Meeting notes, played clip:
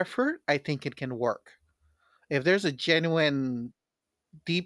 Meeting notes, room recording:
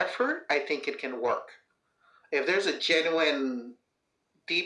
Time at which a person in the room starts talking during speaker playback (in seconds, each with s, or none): none